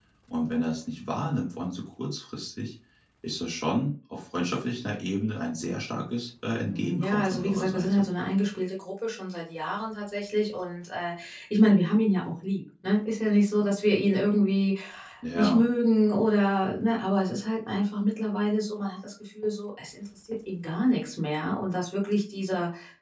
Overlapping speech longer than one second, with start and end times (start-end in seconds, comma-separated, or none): 6.6-8.1